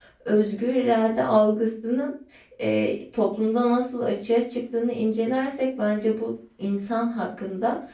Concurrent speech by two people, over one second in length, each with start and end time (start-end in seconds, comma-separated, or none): none